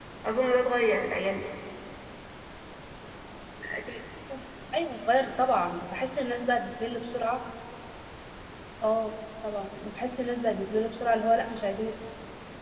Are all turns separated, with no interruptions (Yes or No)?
Yes